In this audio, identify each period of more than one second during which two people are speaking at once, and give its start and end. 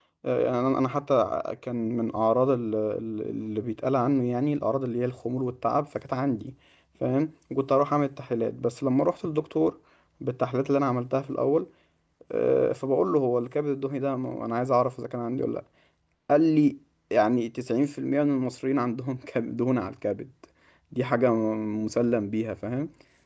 none

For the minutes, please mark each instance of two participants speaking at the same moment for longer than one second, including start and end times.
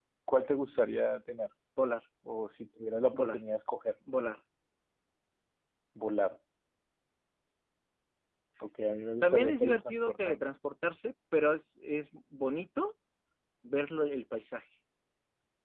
9.2-10.5

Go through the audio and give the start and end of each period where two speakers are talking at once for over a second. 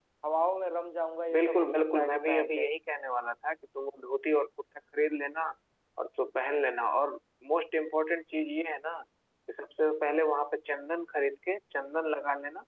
1.3-2.6

